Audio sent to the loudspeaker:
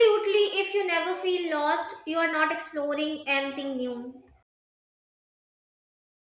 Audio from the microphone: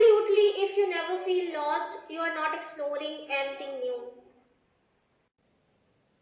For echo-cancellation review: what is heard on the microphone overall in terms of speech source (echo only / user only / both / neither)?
echo only